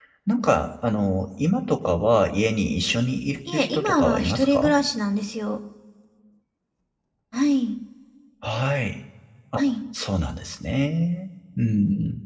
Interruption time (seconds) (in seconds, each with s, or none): 3.5 s